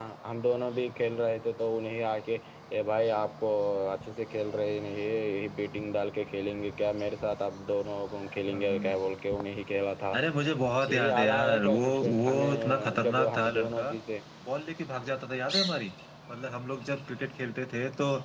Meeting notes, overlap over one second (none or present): present